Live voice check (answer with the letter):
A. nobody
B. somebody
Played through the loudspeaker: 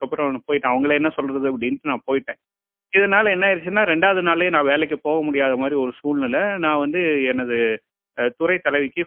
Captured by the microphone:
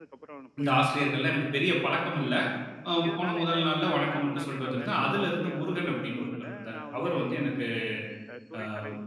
B